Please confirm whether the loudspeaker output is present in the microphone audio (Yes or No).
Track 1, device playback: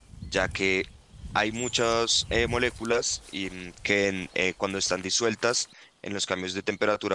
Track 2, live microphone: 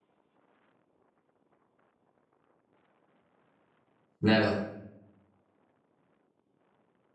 No